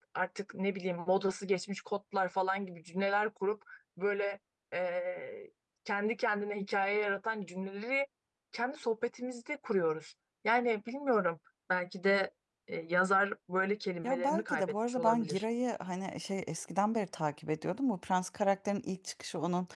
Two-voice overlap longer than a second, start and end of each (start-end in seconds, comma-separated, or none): 14.0-15.4